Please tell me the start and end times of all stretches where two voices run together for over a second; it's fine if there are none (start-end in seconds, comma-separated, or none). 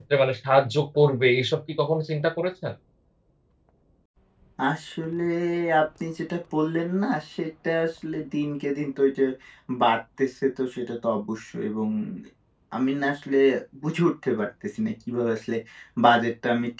none